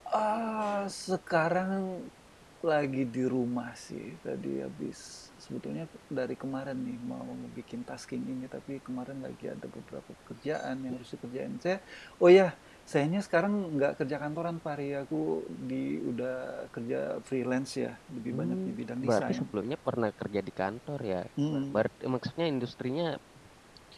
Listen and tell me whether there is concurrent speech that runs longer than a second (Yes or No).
No